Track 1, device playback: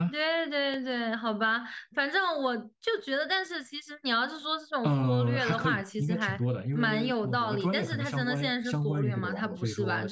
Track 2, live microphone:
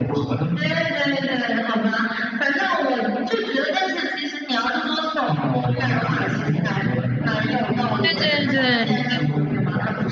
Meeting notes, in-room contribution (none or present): present